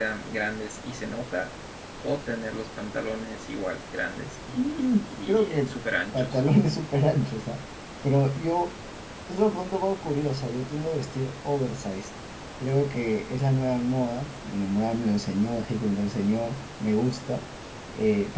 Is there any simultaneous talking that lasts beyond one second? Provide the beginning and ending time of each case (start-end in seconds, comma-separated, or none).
4.5-5.7